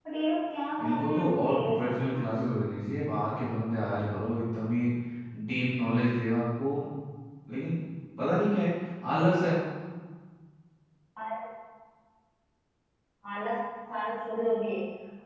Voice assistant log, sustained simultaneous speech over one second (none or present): present